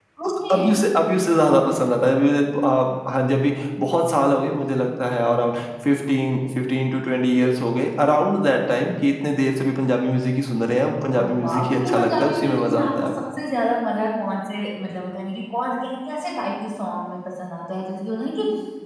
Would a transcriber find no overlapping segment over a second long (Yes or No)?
No